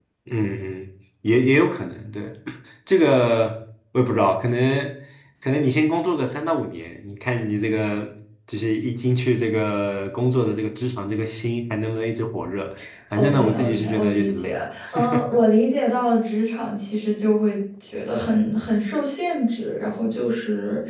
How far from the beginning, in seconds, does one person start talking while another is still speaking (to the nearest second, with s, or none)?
13 s